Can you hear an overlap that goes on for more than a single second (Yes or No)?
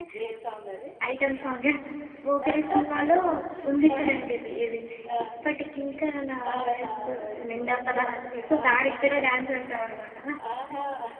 Yes